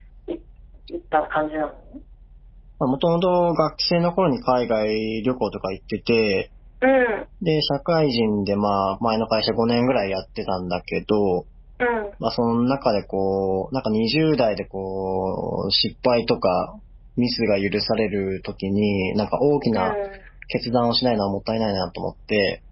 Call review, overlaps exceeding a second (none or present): none